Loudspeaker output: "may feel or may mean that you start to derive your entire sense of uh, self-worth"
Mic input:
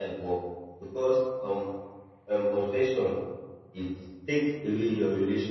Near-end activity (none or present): present